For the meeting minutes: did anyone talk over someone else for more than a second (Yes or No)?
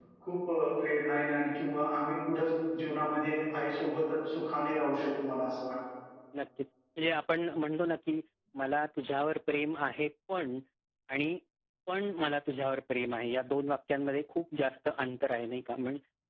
No